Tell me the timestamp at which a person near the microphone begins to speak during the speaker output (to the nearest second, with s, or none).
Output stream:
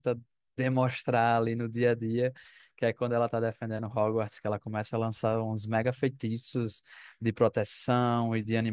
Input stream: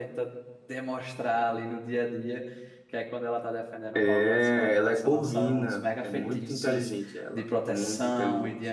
4 s